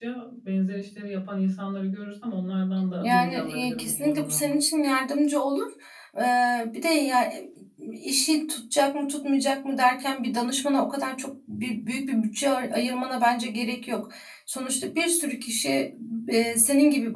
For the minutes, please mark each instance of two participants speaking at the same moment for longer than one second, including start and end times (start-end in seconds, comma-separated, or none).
3.0-4.4